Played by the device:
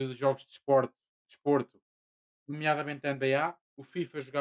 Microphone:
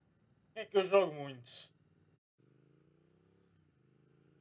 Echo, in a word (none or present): none